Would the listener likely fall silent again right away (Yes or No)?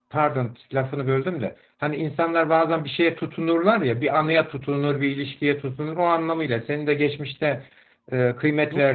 Yes